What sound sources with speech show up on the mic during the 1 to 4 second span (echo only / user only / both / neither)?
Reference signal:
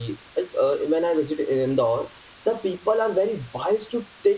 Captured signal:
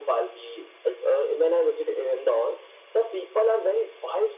echo only